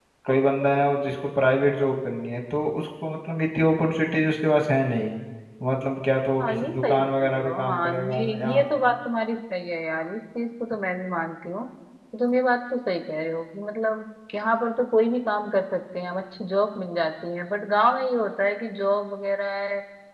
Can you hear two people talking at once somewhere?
Yes, from 6.4 s

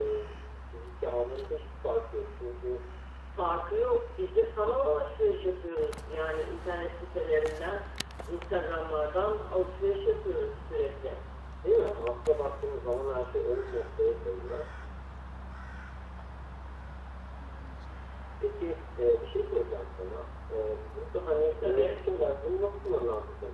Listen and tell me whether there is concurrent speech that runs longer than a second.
No

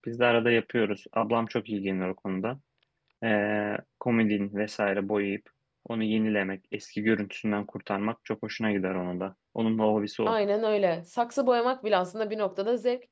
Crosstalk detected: No

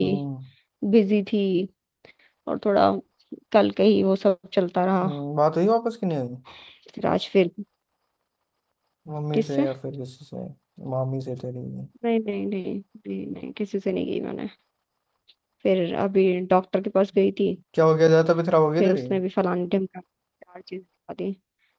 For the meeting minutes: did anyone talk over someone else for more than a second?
No

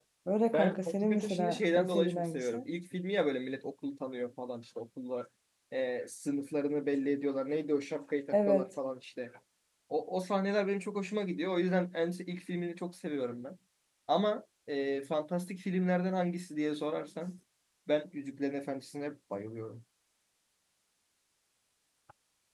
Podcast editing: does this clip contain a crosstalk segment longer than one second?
Yes, from 0.5 s

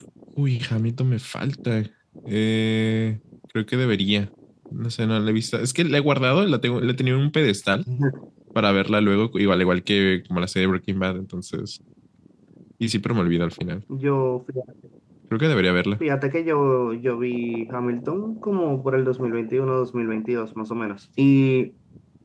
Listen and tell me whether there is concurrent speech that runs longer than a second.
No

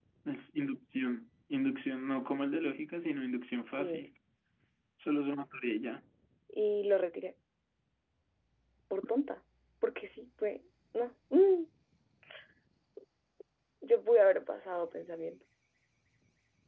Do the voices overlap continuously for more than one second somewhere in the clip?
No

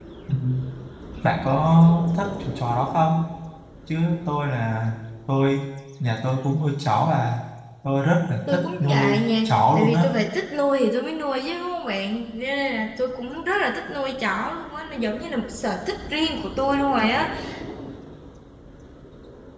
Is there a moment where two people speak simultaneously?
Yes, from 8.5 s

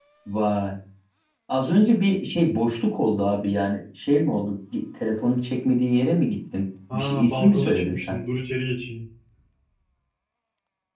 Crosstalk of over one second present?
Yes, from 6.9 s

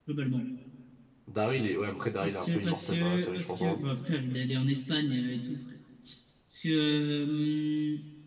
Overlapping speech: Yes, from 2.2 s

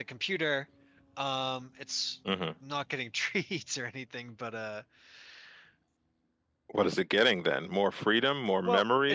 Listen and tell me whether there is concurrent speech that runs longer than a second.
No

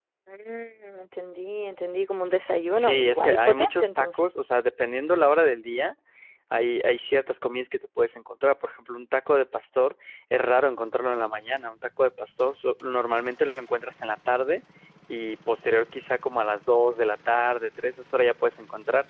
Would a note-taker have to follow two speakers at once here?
Yes, from 2.7 s

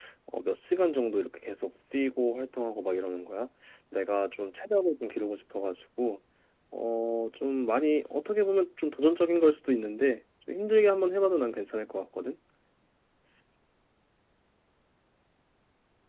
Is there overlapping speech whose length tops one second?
No

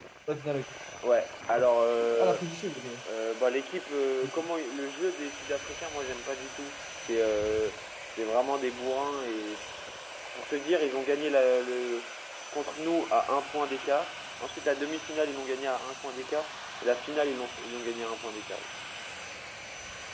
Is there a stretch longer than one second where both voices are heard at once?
No

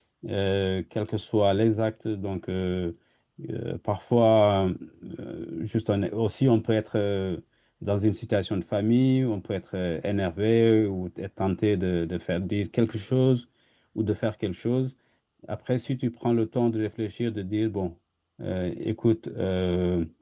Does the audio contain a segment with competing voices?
No

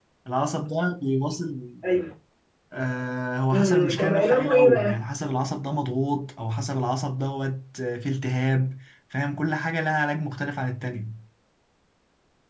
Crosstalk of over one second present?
Yes, from 3.5 s

